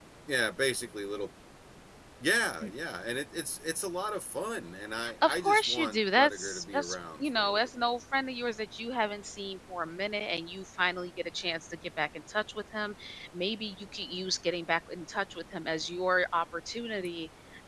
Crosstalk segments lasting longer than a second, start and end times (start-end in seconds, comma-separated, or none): 5.2-7.9